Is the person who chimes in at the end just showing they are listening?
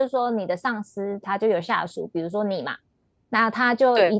Yes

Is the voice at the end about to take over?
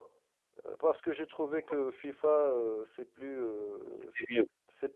No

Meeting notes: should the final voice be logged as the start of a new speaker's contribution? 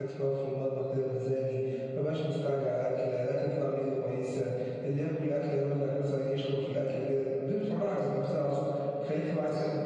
No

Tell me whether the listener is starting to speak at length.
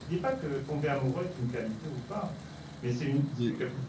No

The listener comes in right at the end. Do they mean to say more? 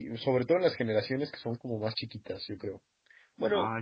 No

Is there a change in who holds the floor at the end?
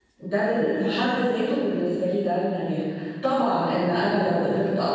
No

